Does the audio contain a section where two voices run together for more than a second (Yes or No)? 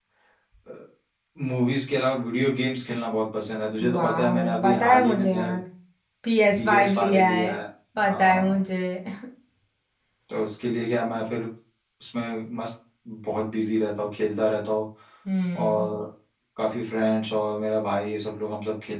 Yes